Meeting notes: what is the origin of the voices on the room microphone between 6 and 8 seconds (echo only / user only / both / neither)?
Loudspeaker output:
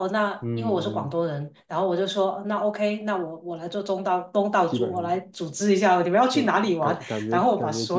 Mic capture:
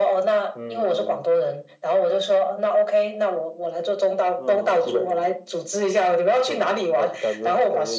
echo only